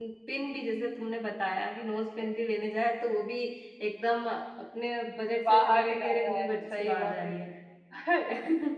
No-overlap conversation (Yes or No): No